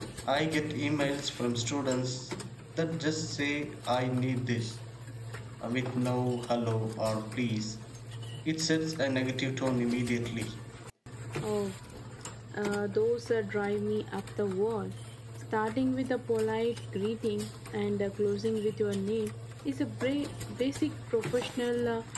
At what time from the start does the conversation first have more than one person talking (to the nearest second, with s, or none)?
none